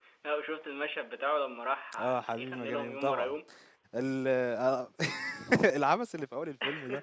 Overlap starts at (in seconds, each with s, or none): 2.0 s